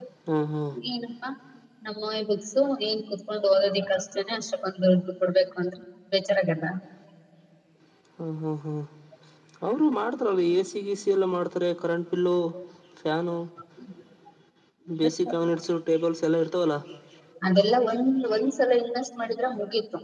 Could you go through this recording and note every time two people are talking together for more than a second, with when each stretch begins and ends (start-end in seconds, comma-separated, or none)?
none